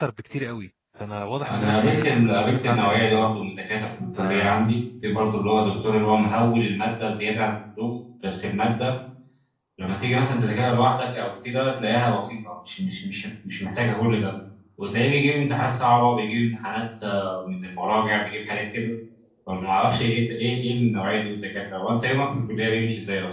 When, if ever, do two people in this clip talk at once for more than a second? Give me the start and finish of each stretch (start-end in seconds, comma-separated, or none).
1.5-3.5